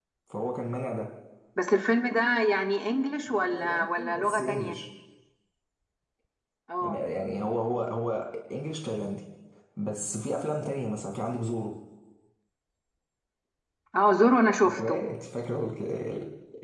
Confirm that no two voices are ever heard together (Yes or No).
No